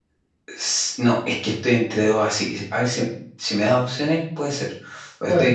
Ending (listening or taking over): listening